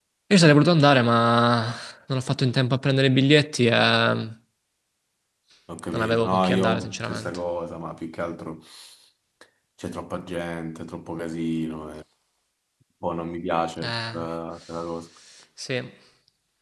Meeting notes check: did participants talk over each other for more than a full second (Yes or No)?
Yes